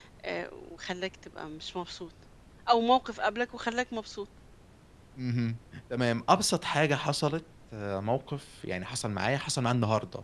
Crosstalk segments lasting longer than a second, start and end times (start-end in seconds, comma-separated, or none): none